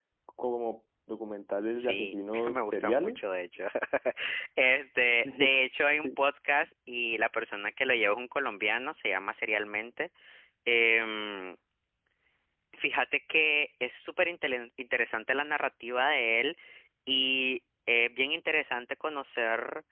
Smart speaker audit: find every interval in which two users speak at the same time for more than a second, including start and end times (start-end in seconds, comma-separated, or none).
1.8-3.2